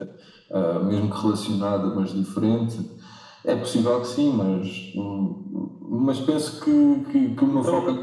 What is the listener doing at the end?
listening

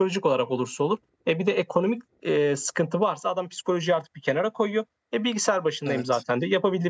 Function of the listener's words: listening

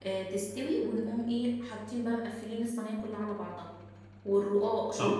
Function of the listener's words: listening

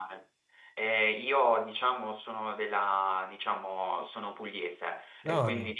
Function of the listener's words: listening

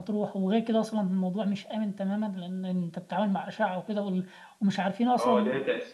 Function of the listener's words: taking over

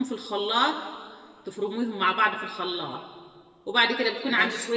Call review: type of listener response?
listening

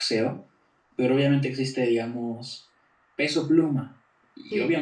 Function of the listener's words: listening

